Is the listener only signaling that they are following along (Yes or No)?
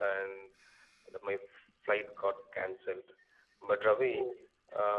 Yes